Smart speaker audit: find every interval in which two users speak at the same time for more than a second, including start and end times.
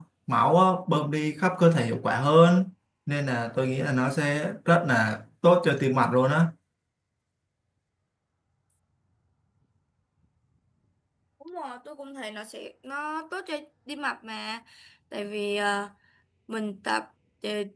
none

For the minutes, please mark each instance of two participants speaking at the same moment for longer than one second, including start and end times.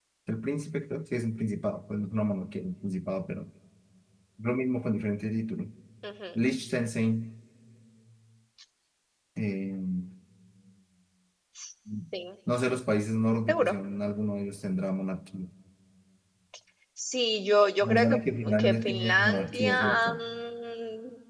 17.8-20.2

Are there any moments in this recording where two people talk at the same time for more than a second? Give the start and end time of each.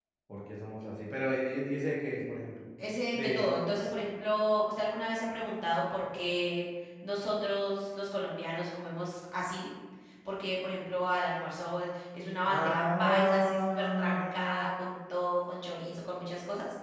12.4-14.6

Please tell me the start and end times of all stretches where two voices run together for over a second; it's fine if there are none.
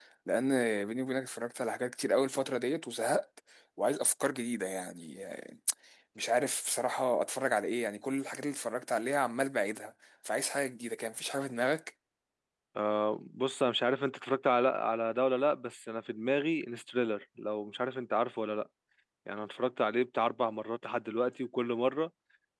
none

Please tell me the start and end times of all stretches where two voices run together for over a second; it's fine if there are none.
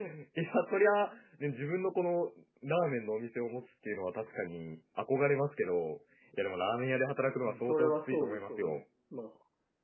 7.4-8.8

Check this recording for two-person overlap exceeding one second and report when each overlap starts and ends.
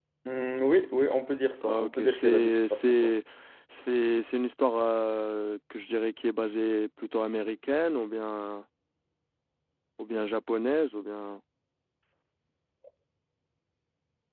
1.6-3.1

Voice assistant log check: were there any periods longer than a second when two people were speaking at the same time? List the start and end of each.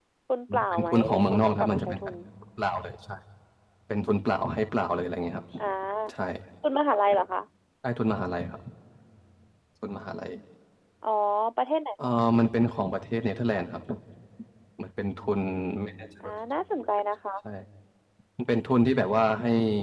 0.7-2.1

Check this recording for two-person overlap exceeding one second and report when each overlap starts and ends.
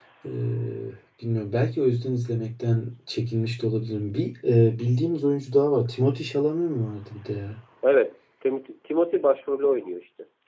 none

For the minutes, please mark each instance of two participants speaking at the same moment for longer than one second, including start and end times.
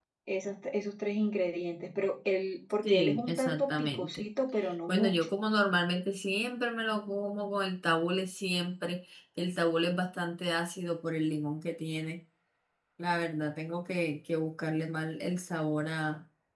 2.8-4.2

